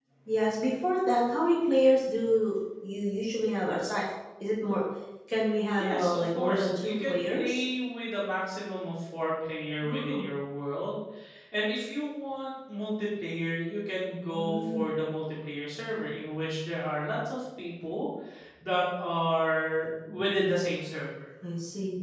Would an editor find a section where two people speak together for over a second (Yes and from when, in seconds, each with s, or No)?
Yes, from 5.8 s